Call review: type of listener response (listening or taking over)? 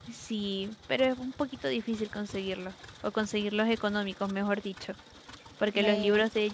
listening